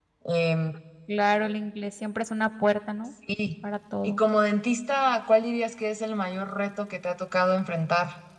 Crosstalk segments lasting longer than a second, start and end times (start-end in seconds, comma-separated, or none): none